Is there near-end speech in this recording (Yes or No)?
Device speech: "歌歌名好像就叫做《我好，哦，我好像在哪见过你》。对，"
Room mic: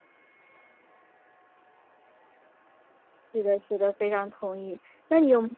Yes